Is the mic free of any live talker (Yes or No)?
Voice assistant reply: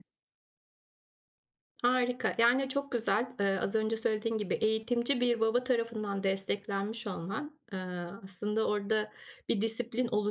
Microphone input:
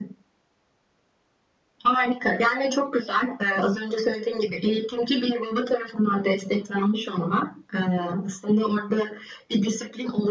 Yes